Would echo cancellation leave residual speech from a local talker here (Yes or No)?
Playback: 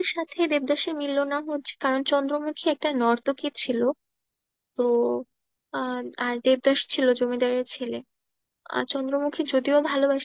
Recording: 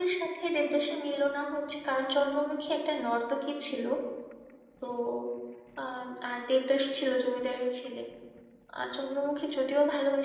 No